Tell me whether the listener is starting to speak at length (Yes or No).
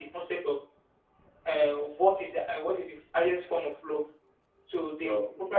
No